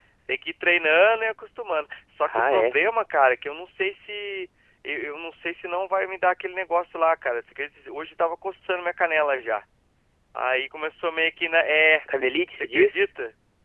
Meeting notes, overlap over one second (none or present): none